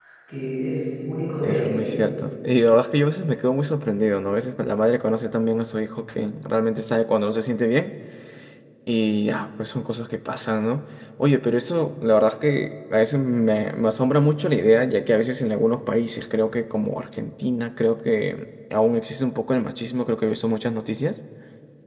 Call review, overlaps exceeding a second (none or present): none